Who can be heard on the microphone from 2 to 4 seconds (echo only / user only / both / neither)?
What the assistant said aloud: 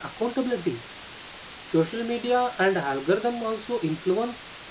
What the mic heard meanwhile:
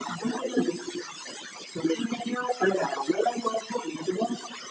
echo only